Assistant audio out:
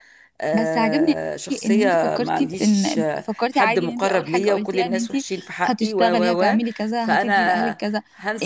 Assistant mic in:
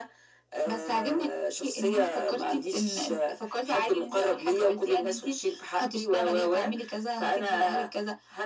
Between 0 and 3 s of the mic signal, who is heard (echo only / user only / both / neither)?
echo only